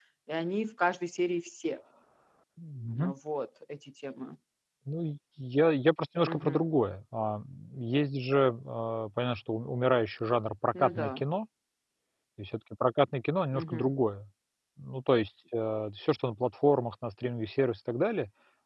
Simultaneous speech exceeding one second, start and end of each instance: none

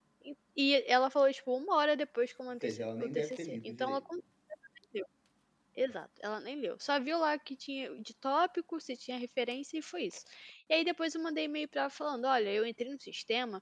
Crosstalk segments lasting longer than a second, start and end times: 2.6-4.0

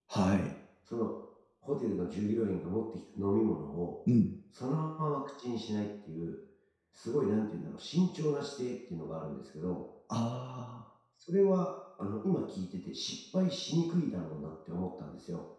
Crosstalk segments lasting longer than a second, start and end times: none

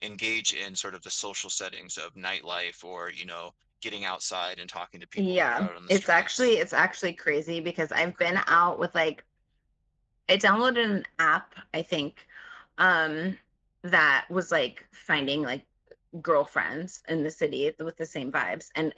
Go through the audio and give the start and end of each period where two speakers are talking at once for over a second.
5.2-6.6

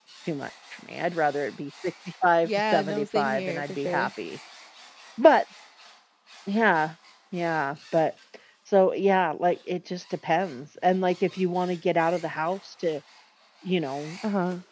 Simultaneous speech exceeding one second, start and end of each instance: 2.5-4.1

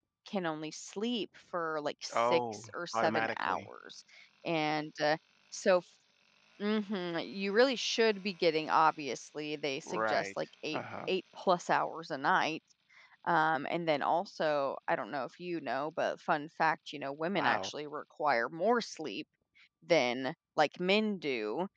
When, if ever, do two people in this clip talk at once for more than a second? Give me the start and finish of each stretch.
2.1-3.7

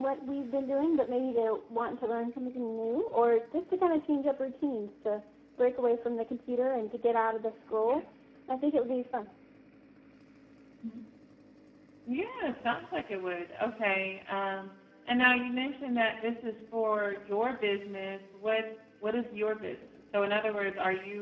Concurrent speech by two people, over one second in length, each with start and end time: none

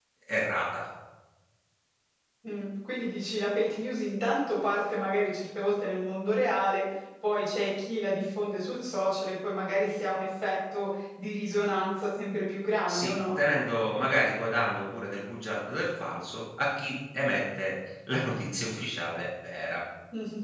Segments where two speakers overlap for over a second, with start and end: none

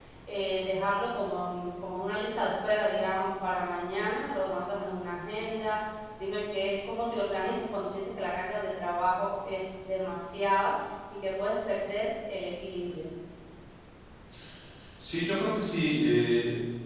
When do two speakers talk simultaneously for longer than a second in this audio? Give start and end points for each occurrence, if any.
none

